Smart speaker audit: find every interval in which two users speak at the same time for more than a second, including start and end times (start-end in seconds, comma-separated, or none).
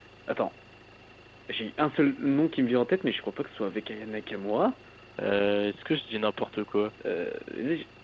none